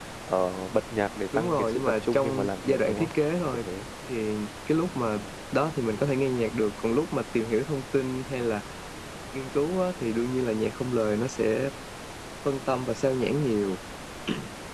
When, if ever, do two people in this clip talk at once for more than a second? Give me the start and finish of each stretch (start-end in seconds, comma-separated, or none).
1.4-3.1